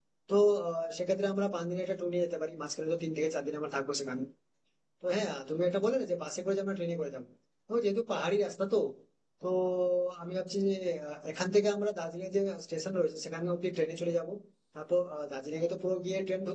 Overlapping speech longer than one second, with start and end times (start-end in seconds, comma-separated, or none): none